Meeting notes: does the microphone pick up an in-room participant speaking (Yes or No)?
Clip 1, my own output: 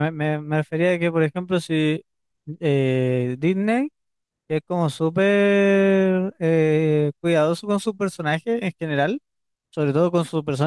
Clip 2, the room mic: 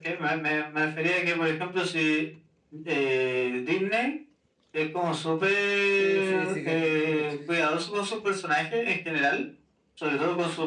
Yes